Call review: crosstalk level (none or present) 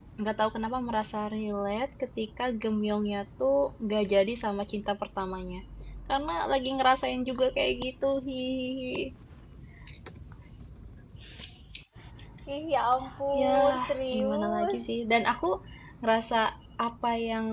present